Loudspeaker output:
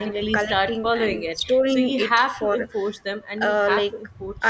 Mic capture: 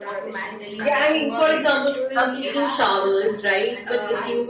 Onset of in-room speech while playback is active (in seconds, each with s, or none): 0.8 s